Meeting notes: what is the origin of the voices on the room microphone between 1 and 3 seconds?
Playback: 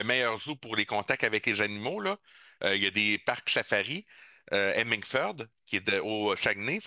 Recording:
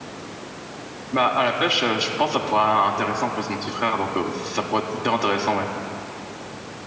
user only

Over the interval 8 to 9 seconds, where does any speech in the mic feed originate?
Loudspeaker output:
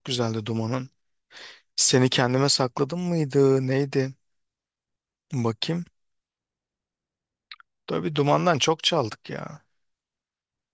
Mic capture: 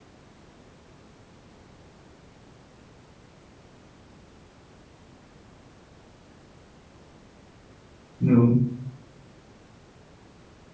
user only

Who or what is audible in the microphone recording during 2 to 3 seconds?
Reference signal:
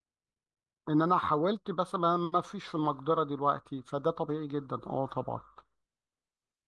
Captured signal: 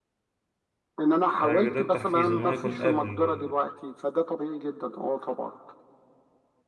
both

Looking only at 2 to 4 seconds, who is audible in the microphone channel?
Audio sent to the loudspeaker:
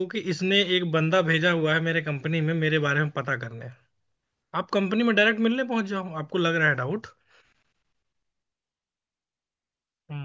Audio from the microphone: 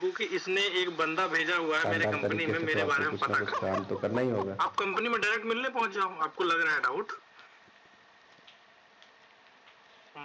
both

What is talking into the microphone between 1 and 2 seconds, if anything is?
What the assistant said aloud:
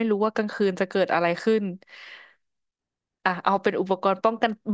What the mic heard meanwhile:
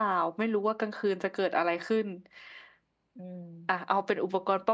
echo only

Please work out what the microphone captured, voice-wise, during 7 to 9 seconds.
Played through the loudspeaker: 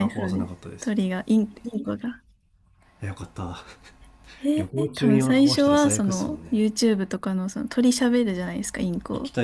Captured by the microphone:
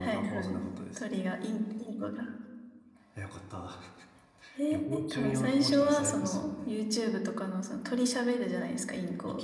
echo only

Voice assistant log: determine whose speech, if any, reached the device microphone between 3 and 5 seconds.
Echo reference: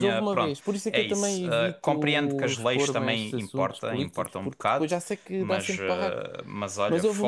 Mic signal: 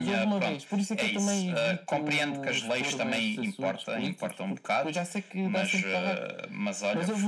echo only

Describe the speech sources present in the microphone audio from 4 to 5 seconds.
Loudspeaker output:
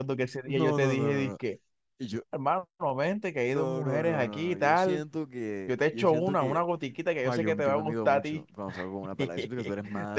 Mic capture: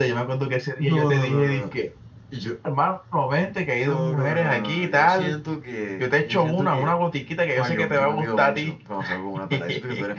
echo only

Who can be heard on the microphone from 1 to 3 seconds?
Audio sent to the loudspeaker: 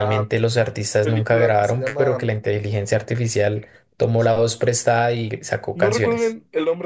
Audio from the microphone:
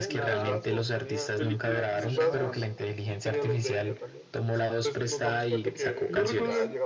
both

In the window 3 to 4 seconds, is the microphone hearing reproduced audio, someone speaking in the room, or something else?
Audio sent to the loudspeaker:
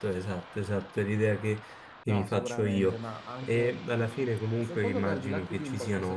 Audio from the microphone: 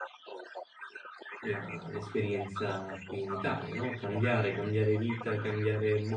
both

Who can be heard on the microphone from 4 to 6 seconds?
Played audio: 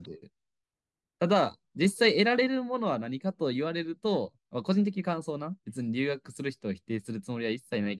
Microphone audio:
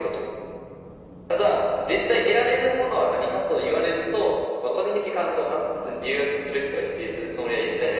echo only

